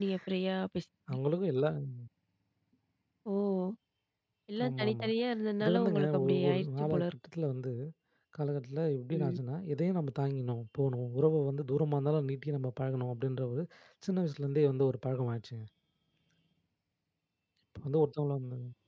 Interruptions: present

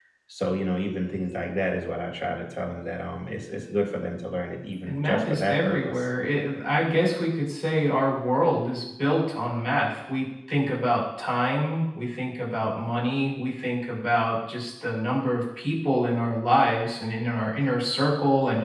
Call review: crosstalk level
present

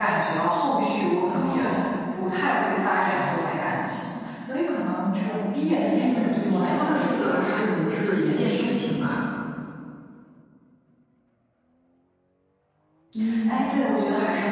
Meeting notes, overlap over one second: present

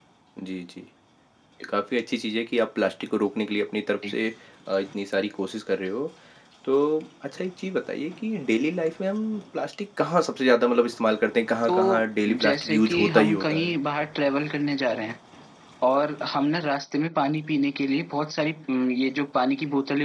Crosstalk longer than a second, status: present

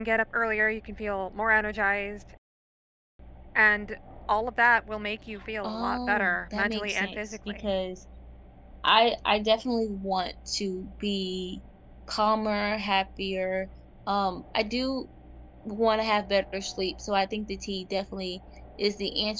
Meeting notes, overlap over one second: present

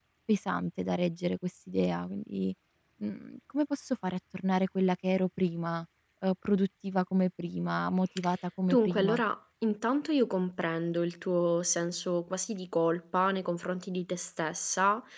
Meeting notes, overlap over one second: none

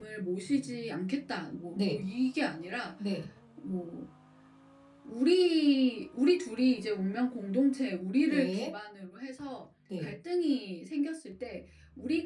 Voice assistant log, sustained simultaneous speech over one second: none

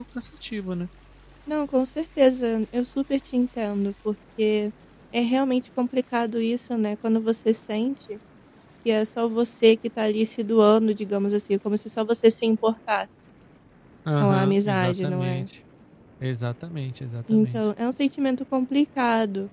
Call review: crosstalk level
present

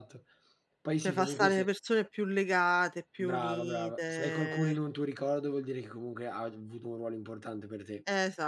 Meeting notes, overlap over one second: present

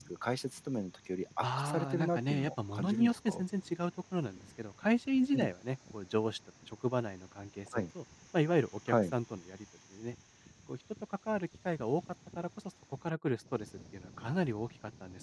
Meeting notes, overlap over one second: present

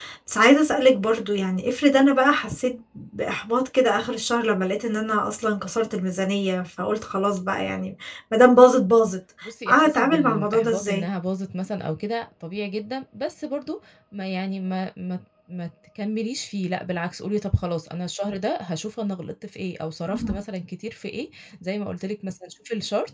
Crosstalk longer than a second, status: present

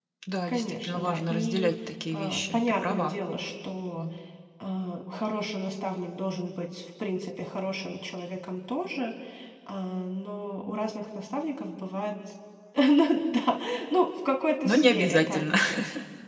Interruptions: present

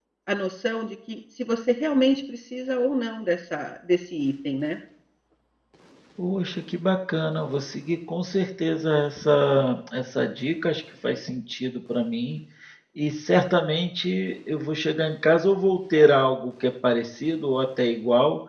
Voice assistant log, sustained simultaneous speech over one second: none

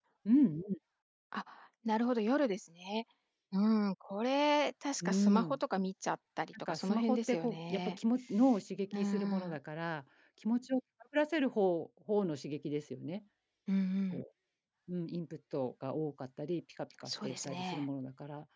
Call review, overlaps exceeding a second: present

